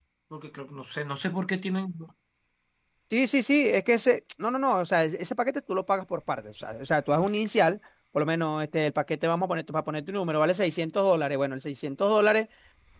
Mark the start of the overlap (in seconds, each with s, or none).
none